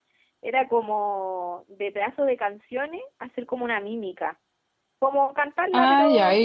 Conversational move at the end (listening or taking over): taking over